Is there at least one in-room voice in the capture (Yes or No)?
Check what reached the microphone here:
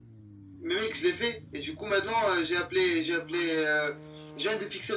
No